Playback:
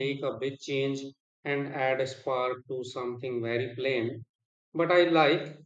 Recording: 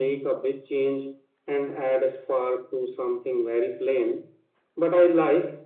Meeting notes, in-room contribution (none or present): none